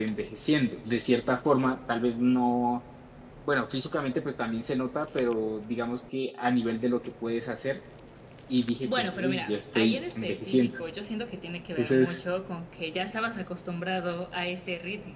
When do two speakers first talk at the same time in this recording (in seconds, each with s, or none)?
8.8 s